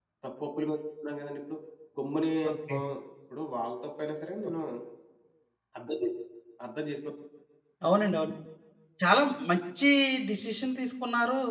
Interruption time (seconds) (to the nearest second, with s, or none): none